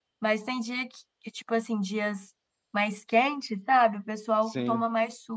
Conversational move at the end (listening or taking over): listening